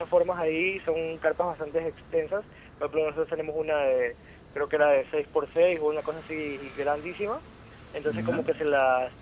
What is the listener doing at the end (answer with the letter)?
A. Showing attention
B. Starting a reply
A